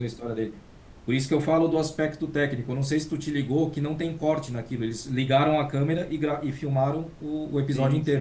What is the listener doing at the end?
taking over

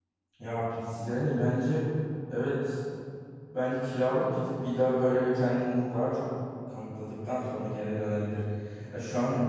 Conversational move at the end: listening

